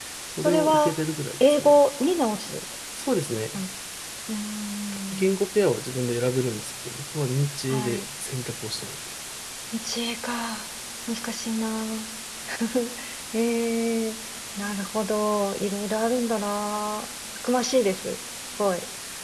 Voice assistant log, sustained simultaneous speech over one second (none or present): none